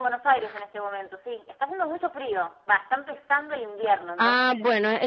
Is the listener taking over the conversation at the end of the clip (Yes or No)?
Yes